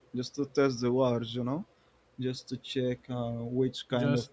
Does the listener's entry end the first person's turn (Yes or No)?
No